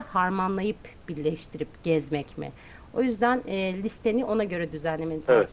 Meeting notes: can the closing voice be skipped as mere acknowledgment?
No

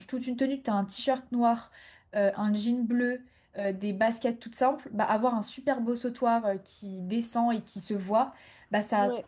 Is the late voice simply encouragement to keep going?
Yes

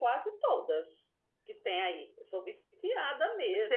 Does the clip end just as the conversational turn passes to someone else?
Yes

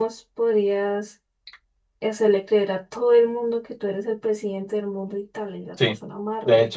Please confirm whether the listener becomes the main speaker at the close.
Yes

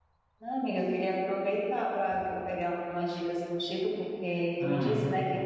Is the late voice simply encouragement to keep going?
Yes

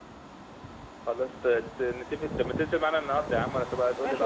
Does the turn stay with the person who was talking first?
No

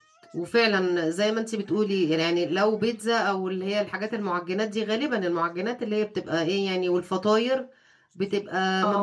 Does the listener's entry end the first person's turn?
No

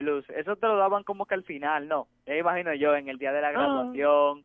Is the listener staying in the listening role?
Yes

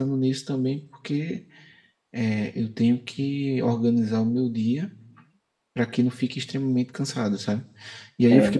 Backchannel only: Yes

